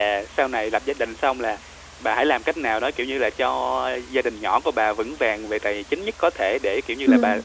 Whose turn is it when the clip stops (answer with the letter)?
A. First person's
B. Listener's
A